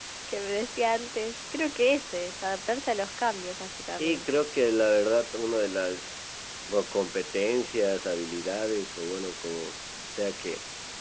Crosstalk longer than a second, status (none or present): none